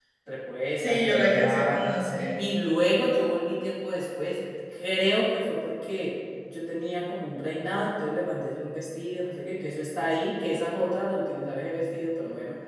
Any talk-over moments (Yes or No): Yes